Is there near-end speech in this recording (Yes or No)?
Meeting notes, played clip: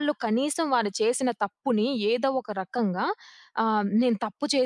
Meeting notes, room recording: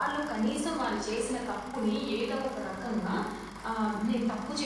No